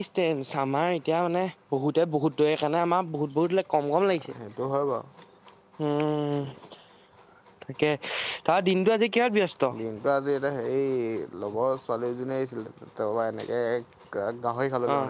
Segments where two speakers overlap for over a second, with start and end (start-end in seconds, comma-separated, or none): none